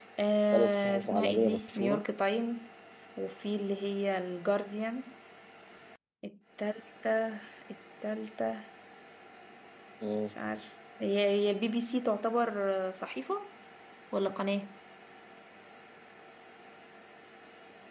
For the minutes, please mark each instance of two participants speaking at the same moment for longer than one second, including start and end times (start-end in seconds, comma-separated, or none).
0.5-2.0